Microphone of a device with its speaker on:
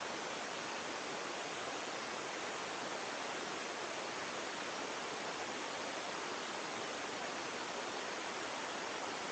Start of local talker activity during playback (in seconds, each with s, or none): none